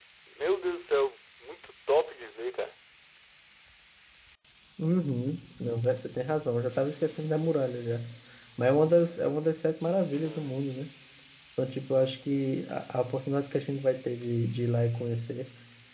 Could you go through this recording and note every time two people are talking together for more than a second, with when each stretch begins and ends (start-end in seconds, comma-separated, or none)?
none